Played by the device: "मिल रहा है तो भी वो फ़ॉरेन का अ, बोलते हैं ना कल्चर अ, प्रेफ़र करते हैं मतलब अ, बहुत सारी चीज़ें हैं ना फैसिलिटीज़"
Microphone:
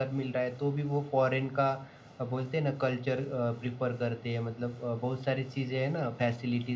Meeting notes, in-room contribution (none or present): none